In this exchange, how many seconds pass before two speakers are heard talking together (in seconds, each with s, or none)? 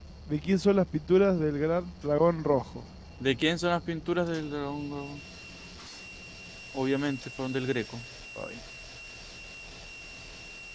none